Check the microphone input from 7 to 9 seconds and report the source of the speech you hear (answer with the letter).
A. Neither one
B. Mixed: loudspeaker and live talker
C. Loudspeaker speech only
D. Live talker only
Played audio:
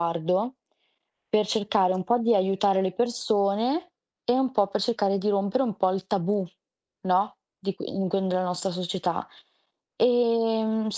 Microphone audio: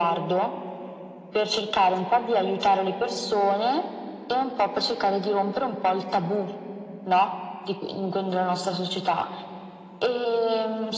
C